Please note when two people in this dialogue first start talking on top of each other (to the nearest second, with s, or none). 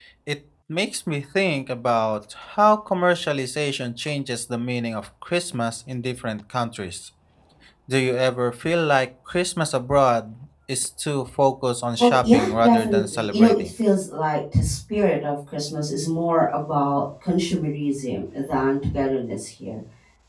12 s